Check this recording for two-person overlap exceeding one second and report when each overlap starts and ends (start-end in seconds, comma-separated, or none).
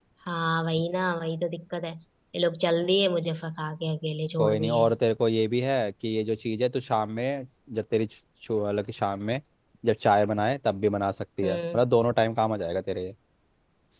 none